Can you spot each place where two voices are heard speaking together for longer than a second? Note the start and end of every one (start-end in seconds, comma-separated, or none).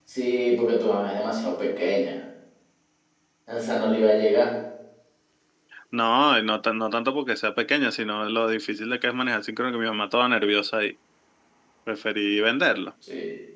none